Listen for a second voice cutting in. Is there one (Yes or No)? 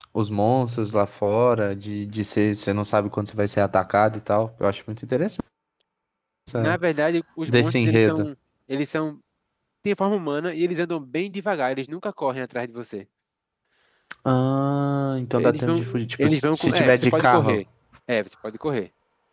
Yes